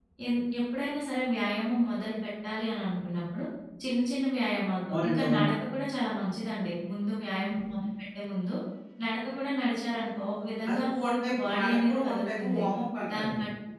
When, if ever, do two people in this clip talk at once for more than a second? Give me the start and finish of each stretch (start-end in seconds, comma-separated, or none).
11.4-12.6